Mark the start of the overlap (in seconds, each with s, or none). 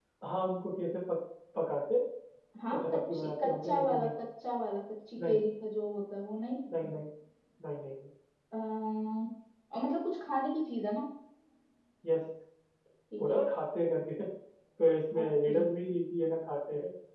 2.7 s